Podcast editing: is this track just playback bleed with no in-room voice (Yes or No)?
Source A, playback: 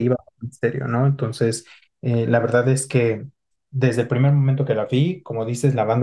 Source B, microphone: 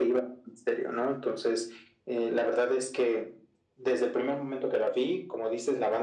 Yes